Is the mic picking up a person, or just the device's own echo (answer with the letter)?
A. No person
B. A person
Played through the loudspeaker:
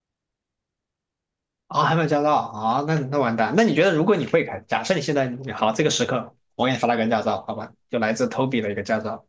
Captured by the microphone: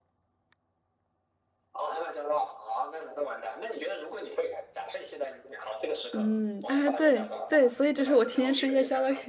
B